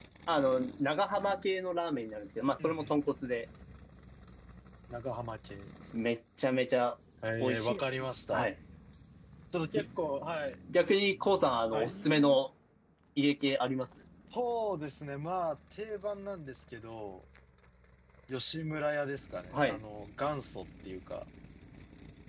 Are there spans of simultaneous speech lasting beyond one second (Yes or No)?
No